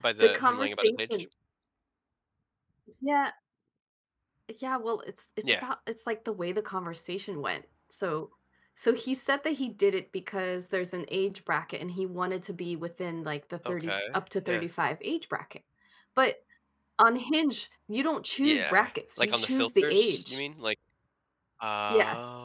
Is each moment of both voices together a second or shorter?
No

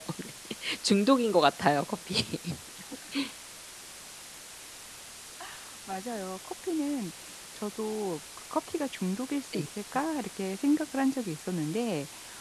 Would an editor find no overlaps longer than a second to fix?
Yes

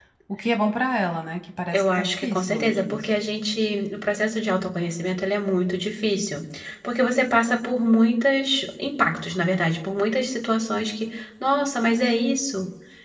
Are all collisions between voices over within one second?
No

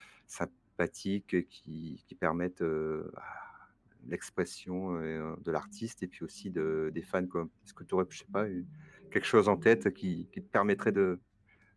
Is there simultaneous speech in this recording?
No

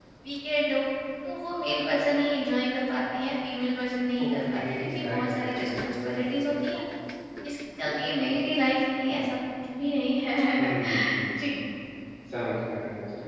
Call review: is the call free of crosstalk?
No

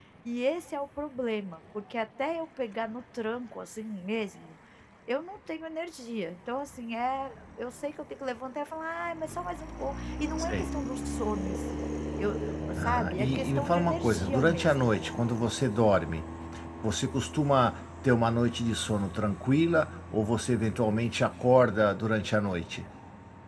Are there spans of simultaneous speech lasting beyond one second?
Yes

